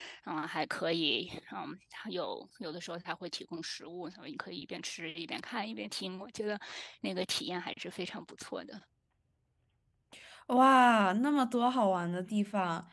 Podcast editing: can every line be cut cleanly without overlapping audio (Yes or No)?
Yes